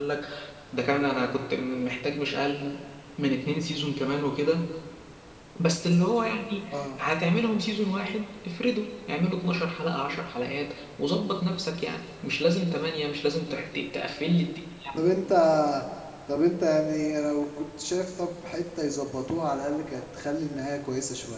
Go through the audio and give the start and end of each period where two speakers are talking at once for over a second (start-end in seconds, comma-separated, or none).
none